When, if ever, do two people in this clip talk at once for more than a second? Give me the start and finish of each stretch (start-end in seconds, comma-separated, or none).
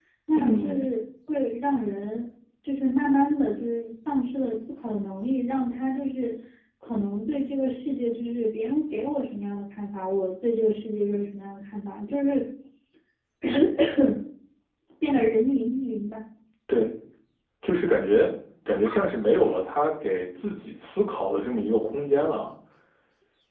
none